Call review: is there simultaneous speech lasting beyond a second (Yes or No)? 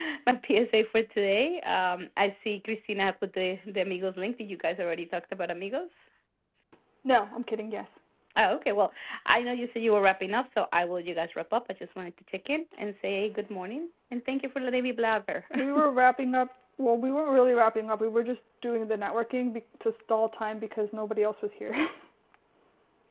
No